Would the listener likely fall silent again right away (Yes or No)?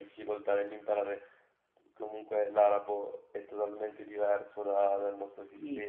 Yes